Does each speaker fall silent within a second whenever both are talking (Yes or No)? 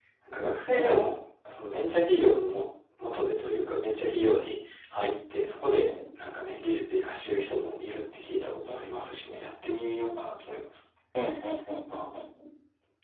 Yes